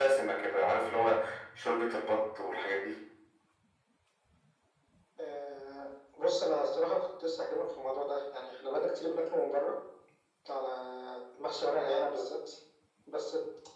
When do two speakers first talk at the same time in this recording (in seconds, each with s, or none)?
none